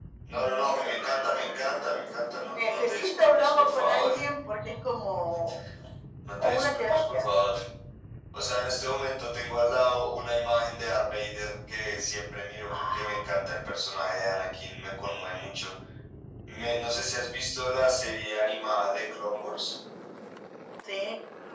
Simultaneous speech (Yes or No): Yes